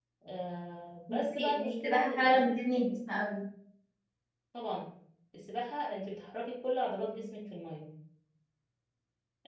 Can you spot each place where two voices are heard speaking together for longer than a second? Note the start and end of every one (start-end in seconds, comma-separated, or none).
1.1-2.6